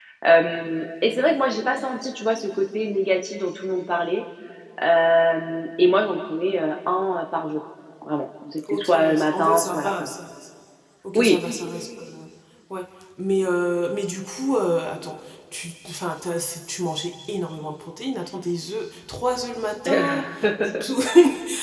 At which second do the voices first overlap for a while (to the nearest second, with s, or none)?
9 s